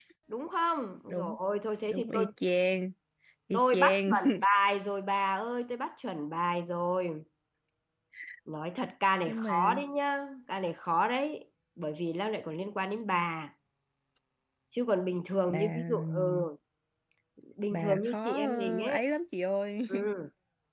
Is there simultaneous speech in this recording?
Yes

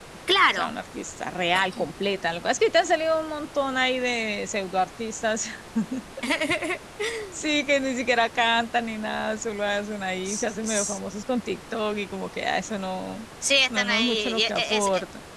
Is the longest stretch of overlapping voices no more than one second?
No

